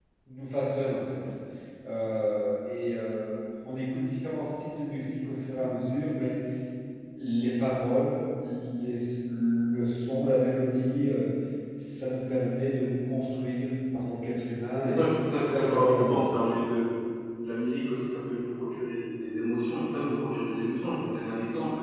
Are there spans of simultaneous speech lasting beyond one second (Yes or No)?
Yes